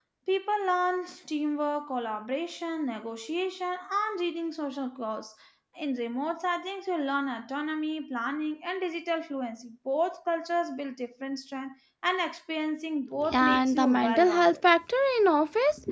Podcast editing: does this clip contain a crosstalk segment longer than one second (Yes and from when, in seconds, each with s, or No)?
Yes, from 13.2 s